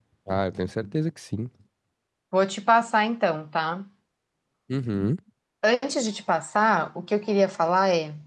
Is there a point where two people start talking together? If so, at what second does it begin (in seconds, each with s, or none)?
none